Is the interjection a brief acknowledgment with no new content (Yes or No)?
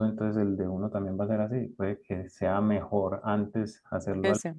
Yes